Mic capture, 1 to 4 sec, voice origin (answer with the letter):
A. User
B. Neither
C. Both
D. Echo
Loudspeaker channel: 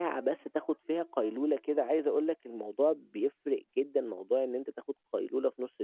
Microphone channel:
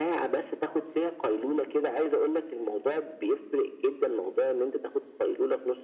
D